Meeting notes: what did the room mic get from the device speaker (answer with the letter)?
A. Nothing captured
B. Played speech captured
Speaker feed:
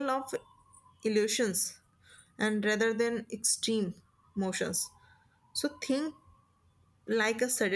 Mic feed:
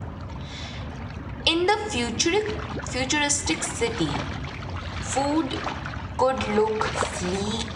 A